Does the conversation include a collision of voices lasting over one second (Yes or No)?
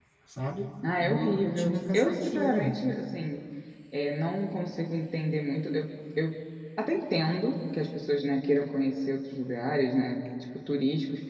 Yes